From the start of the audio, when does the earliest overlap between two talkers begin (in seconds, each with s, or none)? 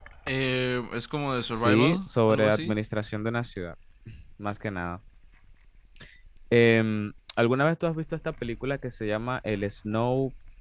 1.4 s